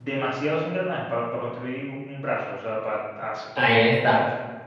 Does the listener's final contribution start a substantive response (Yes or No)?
Yes